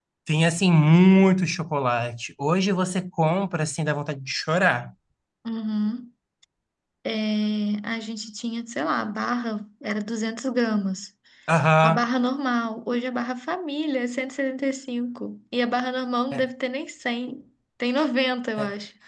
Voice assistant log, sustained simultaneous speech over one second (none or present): none